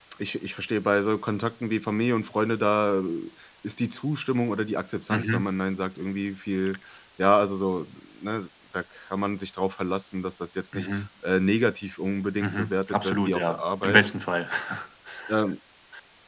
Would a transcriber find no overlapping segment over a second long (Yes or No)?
No